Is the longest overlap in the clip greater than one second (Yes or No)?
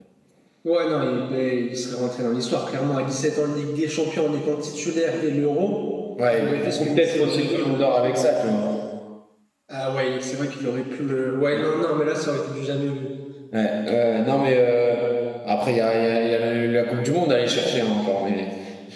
Yes